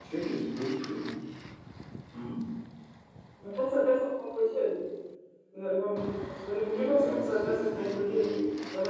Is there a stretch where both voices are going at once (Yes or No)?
Yes